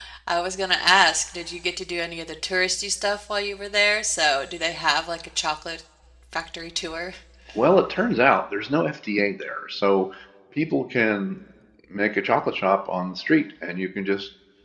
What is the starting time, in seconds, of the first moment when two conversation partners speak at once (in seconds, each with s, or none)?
none